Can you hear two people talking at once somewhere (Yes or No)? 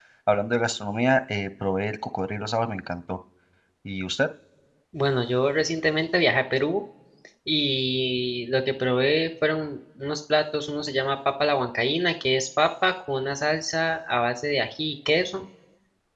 No